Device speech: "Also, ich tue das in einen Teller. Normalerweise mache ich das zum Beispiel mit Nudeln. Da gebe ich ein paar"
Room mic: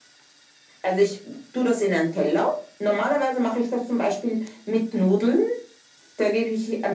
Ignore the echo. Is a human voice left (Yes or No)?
No